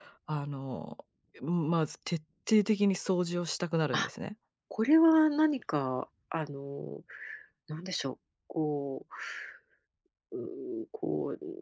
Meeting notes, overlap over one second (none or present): none